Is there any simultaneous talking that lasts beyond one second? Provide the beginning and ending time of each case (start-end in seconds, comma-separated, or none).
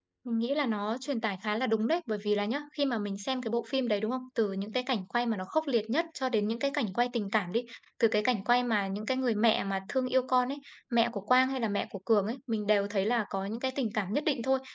none